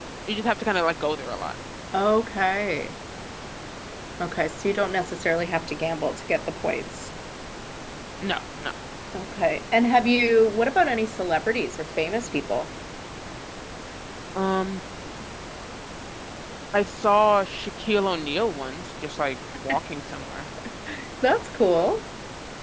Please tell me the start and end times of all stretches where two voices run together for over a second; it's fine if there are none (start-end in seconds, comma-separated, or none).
none